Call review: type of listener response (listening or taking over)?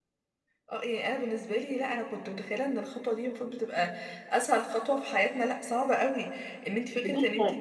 listening